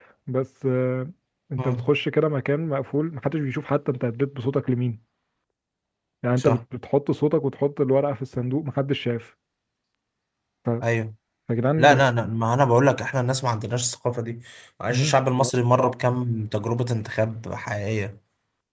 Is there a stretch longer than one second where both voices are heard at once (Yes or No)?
No